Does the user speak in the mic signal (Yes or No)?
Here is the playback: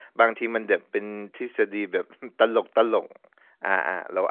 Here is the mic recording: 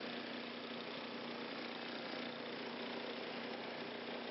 No